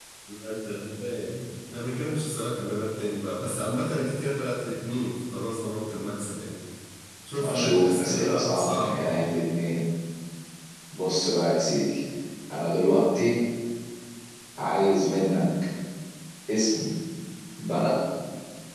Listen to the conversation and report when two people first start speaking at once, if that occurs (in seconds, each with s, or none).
7.4 s